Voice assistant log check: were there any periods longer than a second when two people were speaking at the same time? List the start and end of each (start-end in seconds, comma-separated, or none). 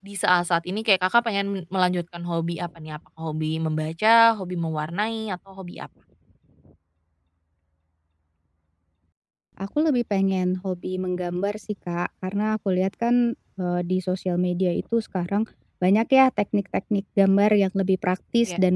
none